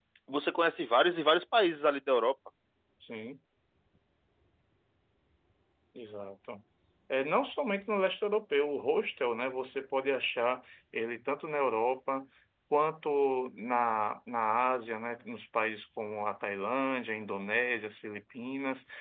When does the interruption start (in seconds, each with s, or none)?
none